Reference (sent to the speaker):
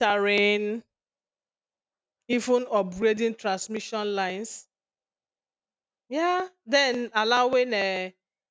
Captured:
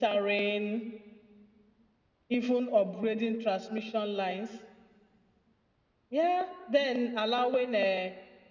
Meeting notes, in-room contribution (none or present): none